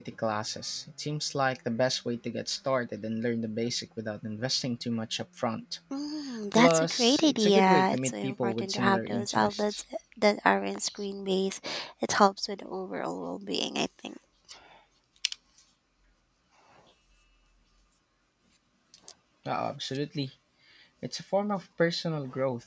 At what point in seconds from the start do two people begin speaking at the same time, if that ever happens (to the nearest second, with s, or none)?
7 s